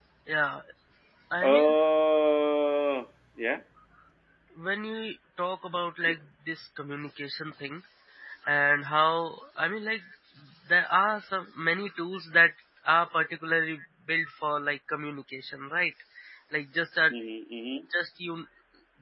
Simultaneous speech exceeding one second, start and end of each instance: none

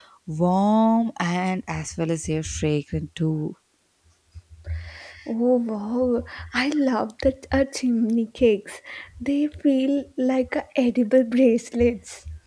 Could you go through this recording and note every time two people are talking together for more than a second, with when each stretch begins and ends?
none

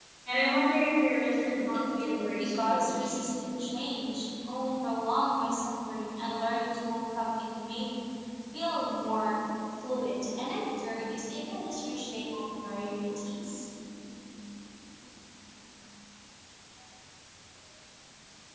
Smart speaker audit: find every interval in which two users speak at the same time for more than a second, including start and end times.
1.7-3.2

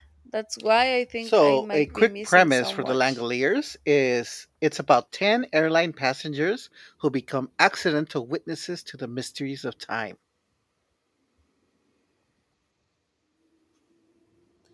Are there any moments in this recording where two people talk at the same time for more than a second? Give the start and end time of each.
1.2-3.2

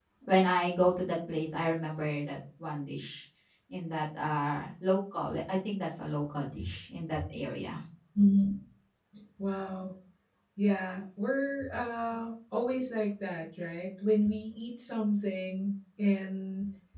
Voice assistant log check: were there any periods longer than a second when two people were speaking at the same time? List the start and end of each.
none

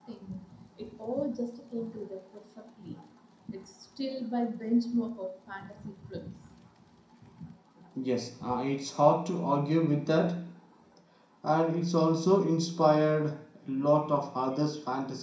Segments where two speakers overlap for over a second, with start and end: none

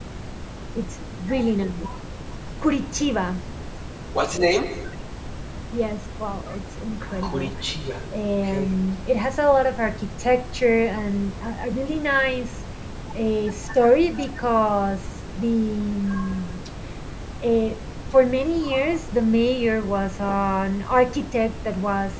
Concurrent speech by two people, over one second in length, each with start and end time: none

